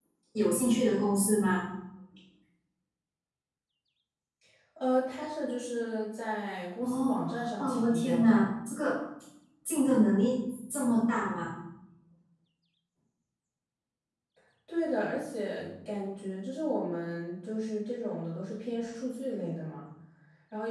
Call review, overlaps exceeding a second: present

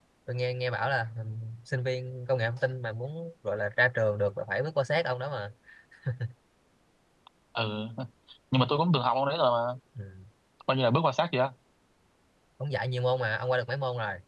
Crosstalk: none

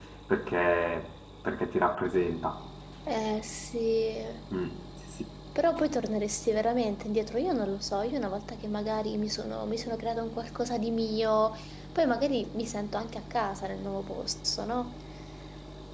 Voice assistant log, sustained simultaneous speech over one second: none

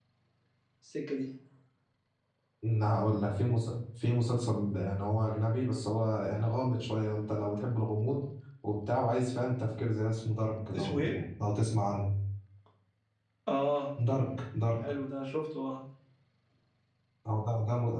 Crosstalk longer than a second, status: none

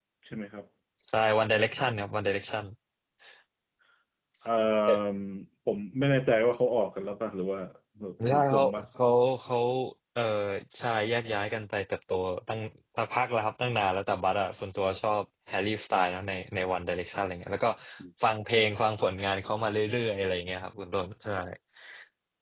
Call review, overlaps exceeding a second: none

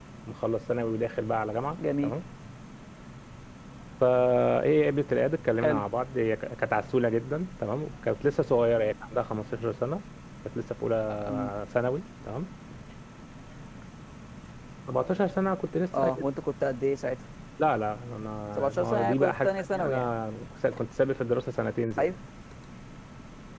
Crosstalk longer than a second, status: present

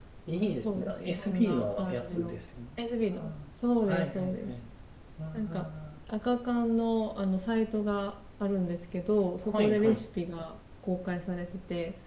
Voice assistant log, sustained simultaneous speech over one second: present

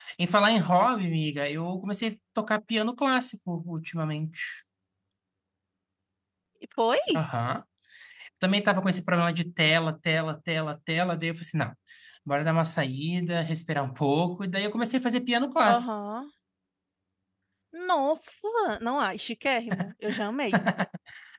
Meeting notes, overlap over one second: none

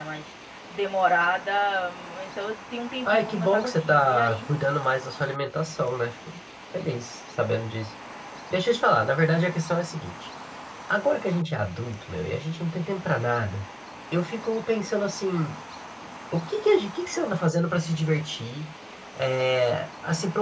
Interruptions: present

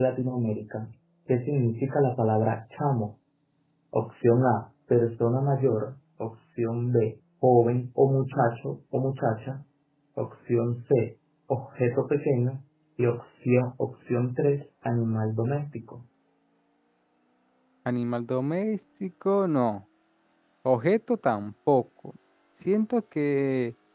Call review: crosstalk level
none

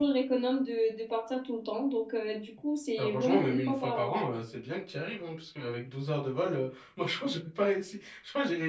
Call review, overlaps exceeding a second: present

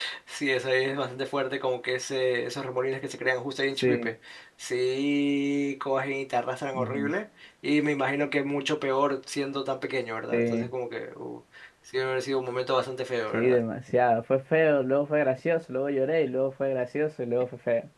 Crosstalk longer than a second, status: none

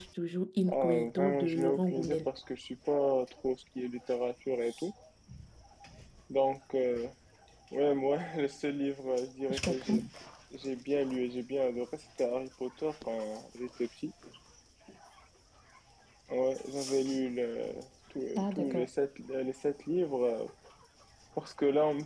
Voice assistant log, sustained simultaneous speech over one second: present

